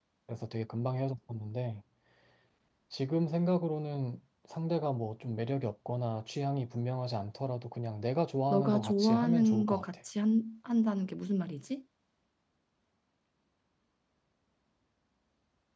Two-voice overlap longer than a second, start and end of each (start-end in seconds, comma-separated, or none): 8.5-9.8